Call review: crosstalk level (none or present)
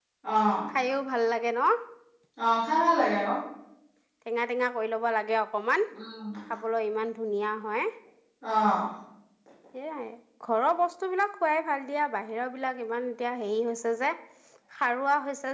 none